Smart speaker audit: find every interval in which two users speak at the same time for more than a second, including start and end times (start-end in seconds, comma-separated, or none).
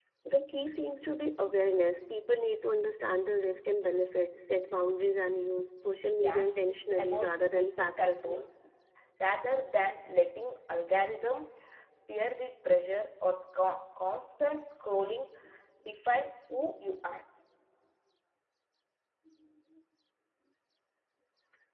6.2-8.4